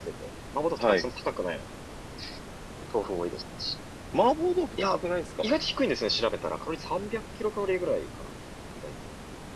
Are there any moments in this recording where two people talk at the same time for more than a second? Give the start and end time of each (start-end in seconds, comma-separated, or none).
none